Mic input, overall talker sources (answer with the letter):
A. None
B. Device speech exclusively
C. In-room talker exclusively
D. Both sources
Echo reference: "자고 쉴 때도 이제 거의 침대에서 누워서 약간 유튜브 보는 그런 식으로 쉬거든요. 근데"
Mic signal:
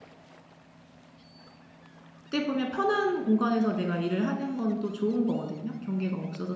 C